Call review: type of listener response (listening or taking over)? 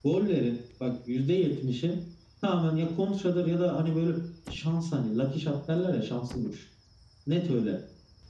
listening